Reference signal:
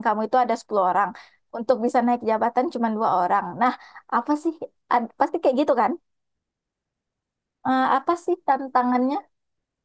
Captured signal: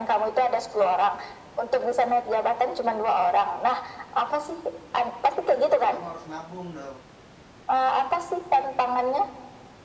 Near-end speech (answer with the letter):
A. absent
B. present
B